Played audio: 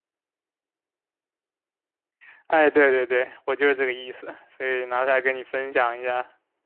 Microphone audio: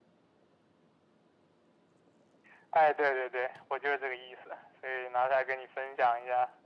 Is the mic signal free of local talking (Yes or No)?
Yes